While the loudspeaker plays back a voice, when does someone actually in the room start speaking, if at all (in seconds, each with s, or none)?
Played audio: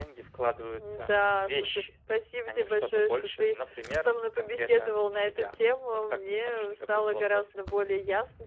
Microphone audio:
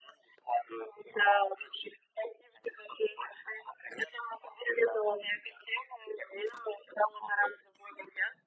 none